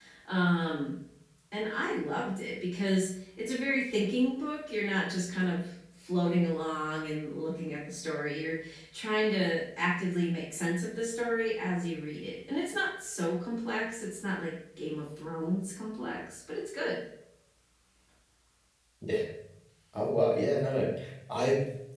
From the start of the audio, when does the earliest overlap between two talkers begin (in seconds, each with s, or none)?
none